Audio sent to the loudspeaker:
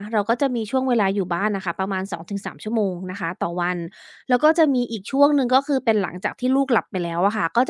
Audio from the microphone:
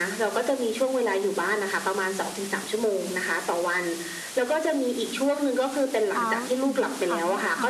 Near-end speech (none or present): present